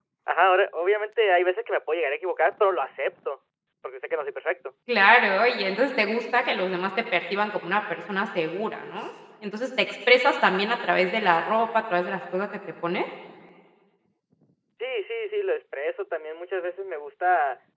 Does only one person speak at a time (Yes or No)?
Yes